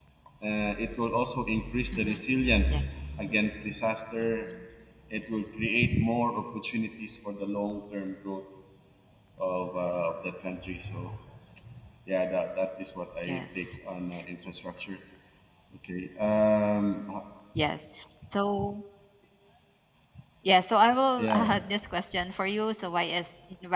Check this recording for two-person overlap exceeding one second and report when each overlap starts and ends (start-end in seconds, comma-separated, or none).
none